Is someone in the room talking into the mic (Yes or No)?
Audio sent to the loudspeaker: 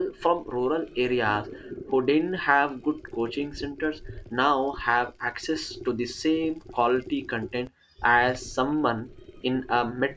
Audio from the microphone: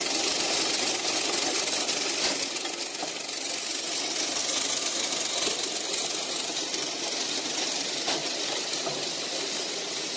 No